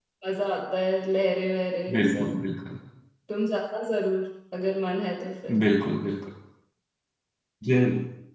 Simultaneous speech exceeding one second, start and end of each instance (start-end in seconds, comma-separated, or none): none